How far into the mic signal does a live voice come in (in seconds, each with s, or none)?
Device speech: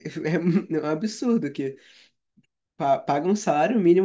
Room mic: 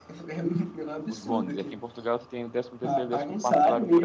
1.1 s